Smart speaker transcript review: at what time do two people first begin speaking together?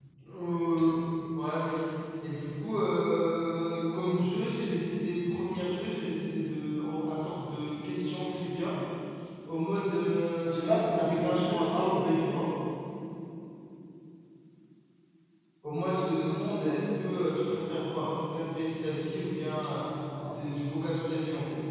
10.4 s

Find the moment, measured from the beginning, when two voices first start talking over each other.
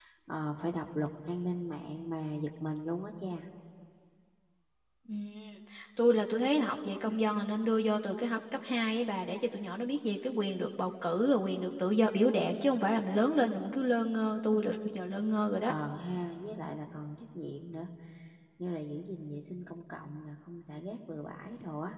none

